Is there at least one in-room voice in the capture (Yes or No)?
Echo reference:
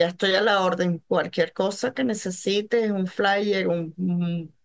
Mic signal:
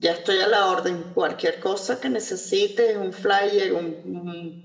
No